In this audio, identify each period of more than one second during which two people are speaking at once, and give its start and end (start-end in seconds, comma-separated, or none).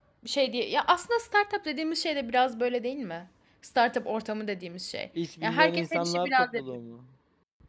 5.4-6.6